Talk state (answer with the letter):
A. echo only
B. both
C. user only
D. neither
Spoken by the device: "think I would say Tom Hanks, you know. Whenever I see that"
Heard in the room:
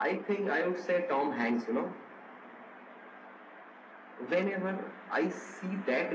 A